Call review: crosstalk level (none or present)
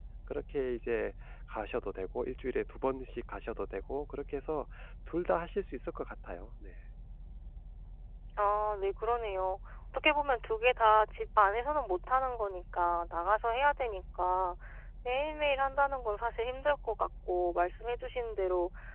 none